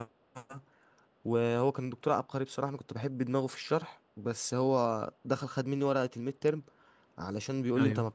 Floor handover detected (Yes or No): No